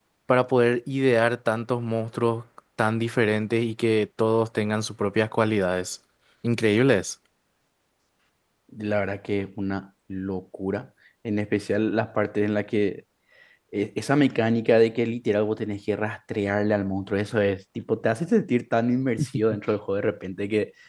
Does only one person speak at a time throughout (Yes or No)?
Yes